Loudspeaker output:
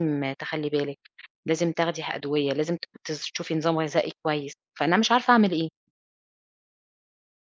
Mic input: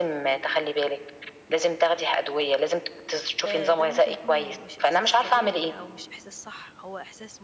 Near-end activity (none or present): present